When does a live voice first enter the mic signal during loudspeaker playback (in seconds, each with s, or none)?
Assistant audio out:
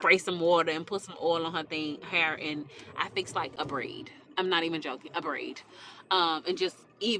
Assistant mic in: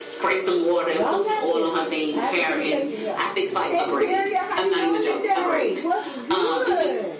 0.9 s